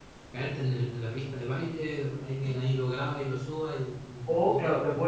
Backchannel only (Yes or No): No